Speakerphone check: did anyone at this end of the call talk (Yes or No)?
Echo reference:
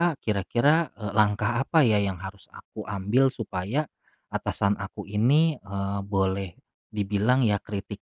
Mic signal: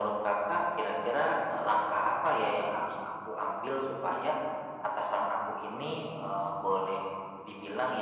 No